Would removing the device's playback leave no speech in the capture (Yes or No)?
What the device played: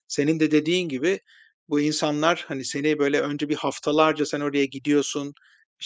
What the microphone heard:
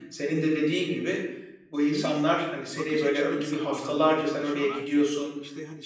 No